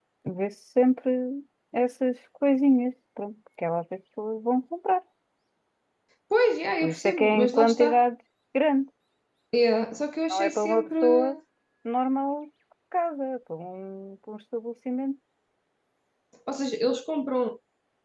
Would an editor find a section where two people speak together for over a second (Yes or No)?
Yes